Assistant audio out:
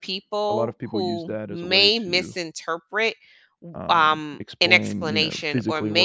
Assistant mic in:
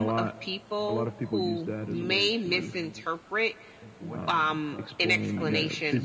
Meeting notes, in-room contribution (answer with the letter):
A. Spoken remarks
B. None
A